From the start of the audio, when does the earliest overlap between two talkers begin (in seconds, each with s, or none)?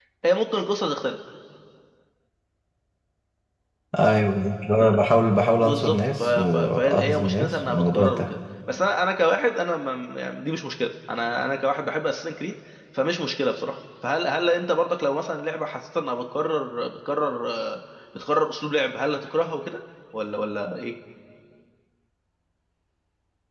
5.6 s